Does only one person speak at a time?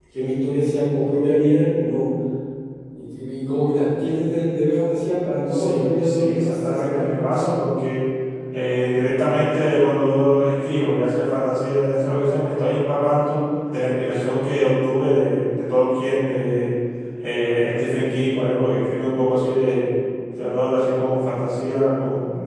No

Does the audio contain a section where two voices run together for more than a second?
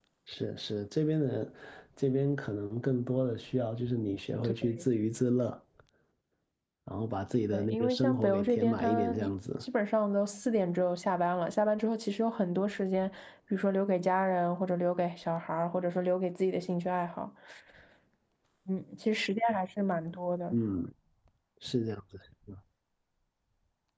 Yes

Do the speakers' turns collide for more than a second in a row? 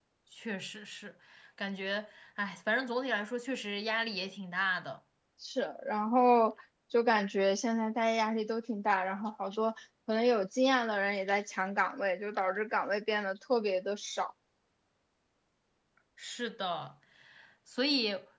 No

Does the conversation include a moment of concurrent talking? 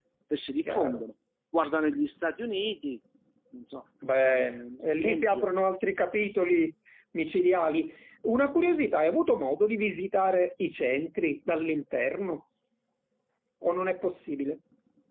Yes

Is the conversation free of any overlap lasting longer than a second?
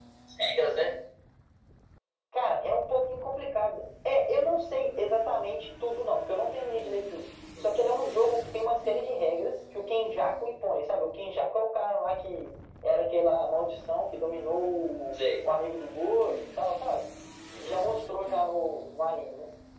Yes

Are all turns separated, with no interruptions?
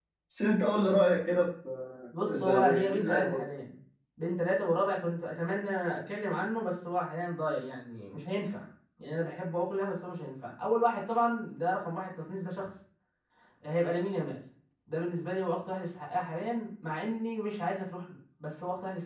No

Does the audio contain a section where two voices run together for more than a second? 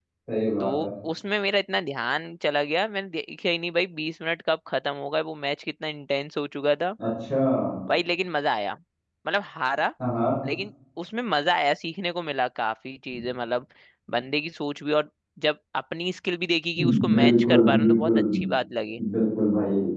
Yes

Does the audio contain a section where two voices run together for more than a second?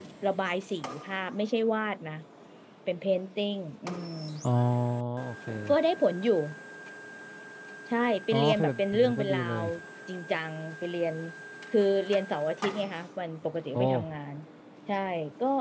Yes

